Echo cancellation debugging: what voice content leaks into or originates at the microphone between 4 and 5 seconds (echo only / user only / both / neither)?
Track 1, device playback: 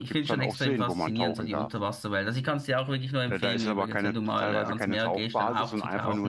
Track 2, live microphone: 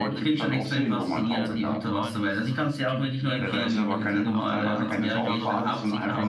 both